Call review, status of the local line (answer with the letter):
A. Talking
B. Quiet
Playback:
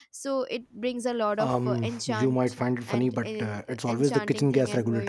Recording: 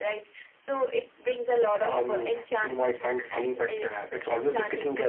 B